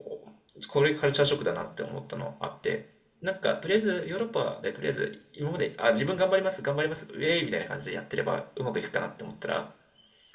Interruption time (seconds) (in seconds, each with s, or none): none